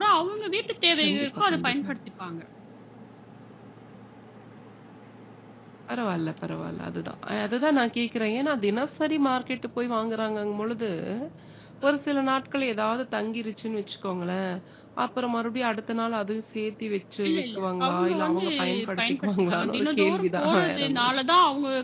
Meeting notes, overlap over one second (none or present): present